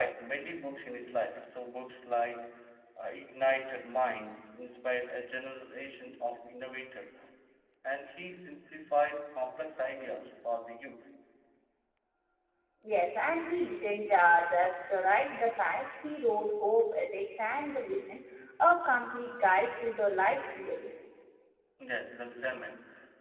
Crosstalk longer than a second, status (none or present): none